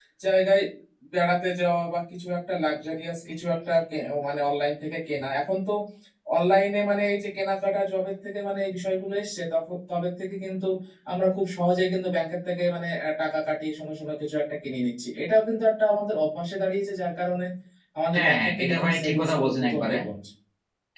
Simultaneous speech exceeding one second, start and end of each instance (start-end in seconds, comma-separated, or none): 18.1-19.9